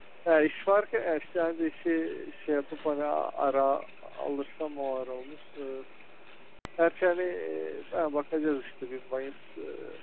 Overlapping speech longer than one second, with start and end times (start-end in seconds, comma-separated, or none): none